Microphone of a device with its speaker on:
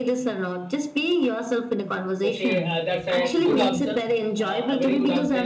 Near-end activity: present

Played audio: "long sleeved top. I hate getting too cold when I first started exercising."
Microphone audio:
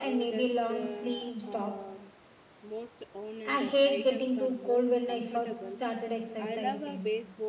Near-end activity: present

